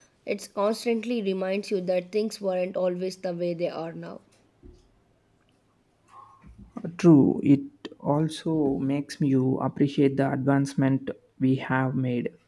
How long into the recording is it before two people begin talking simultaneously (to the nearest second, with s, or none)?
none